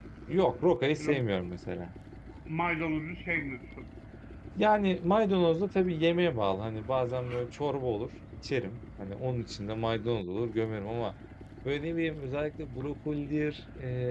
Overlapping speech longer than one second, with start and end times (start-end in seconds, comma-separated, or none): none